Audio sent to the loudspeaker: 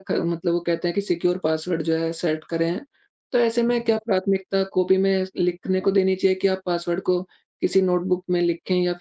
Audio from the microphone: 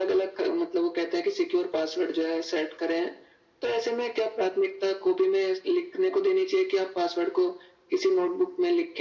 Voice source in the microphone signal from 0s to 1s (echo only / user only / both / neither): echo only